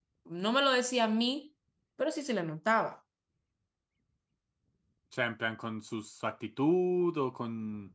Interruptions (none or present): none